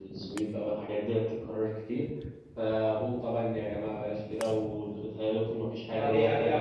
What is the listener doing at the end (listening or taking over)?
taking over